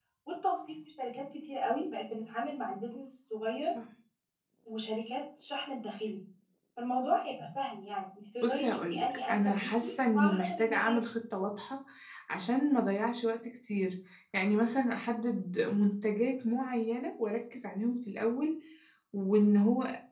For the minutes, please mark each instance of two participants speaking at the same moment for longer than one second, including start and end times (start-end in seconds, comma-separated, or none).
8.4-11.0